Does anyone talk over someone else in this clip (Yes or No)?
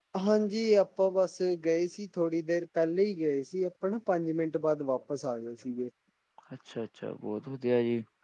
No